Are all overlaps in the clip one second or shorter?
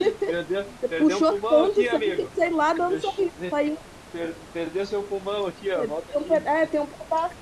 No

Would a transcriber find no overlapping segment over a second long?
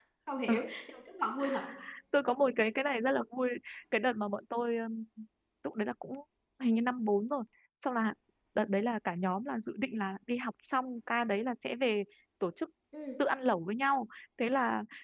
Yes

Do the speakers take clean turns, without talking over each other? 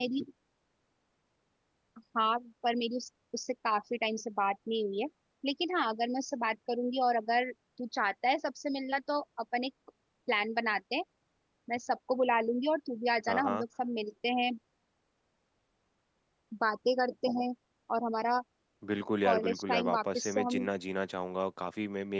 No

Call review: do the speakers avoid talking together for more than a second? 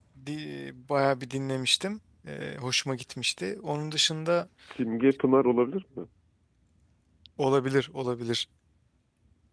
Yes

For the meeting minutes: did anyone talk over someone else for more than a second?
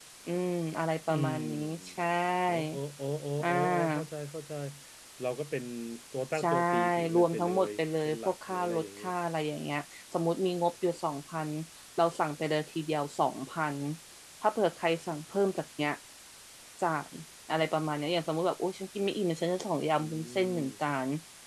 Yes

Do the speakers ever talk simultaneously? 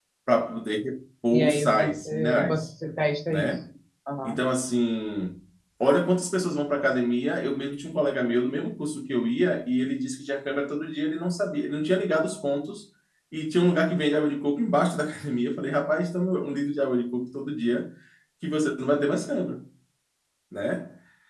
Yes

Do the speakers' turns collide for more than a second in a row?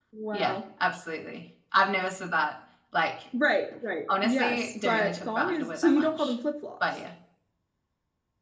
Yes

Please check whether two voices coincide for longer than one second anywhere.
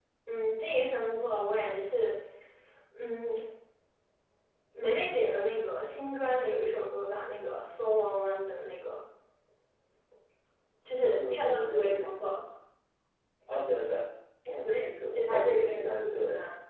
Yes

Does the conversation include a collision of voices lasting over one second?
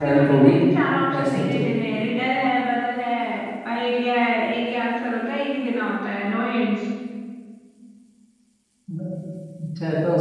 No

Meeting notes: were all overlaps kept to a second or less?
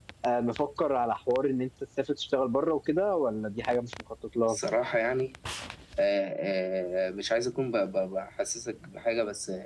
Yes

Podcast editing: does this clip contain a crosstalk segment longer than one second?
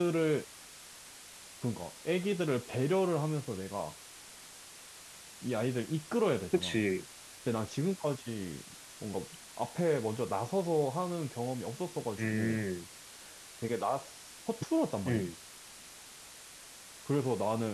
No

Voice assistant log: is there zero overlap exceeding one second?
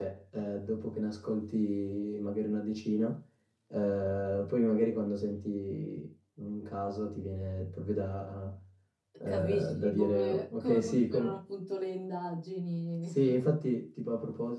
No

